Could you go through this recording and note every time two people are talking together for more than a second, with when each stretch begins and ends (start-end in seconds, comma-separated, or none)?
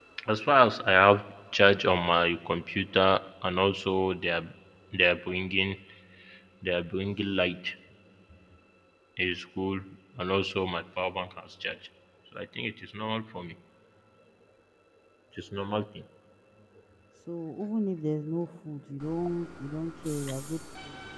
none